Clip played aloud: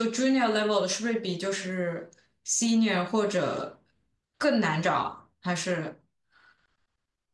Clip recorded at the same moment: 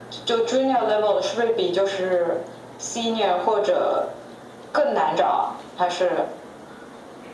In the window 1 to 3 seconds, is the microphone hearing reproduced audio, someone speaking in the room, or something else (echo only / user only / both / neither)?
echo only